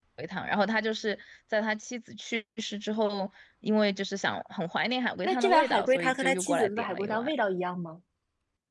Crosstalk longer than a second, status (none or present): present